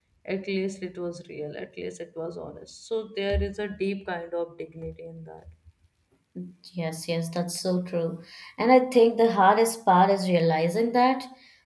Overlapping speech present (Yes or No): No